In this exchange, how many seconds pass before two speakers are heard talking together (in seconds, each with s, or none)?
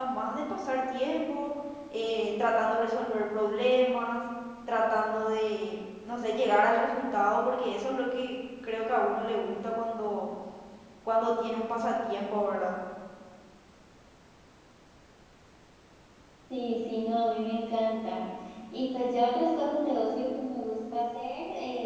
none